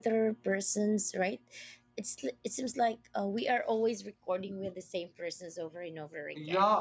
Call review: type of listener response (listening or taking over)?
taking over